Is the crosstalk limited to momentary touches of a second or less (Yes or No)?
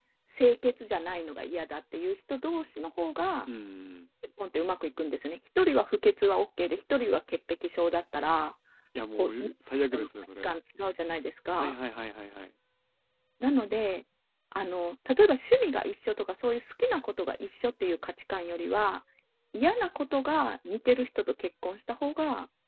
Yes